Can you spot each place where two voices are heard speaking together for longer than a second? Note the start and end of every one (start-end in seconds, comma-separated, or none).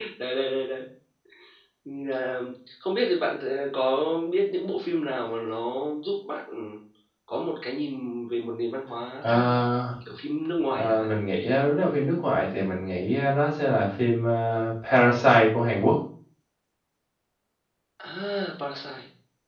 none